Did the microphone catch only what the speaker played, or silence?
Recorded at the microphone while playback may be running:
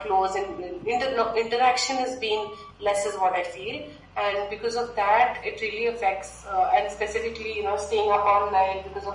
Yes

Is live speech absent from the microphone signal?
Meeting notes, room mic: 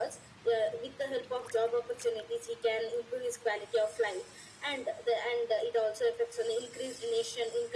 Yes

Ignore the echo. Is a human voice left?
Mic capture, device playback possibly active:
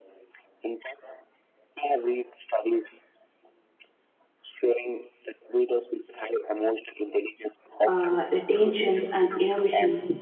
Yes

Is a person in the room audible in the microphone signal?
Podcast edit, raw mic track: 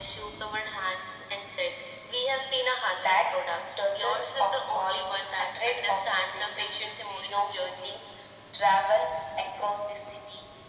No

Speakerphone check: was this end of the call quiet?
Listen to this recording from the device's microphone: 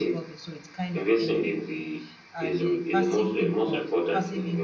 No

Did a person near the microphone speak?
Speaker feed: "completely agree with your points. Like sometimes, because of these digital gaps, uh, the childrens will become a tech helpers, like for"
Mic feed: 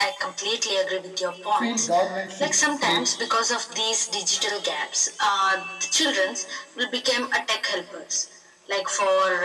Yes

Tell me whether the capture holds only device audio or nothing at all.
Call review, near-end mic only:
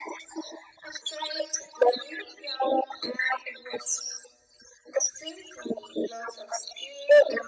Yes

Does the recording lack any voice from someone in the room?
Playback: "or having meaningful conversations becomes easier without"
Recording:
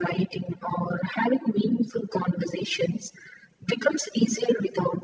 Yes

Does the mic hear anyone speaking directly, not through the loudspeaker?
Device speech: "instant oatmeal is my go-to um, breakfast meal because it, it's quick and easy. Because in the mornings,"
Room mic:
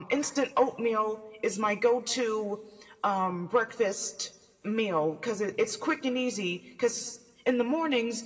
No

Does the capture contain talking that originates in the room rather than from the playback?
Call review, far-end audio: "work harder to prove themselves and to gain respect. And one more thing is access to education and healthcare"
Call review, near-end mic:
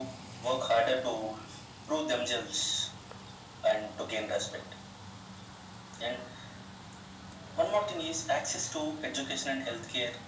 No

